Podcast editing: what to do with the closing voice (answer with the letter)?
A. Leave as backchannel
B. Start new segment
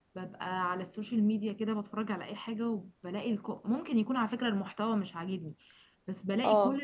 A